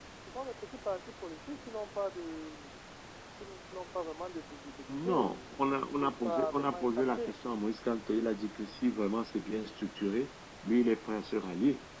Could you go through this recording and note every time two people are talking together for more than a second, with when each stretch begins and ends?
4.9-7.4

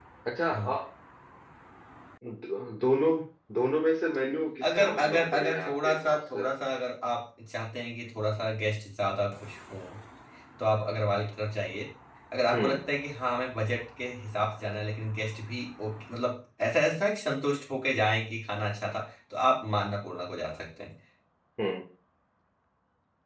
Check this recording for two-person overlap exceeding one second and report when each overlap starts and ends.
4.7-6.4

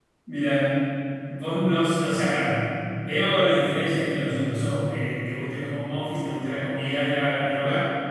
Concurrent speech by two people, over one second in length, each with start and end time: none

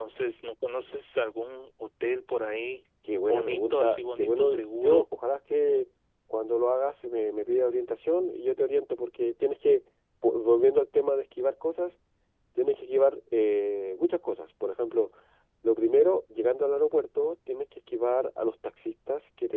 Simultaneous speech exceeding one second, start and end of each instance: 3.2-5.0

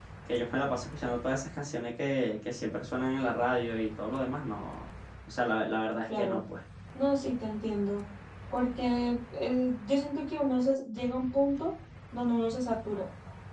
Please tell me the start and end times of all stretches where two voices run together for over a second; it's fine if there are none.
none

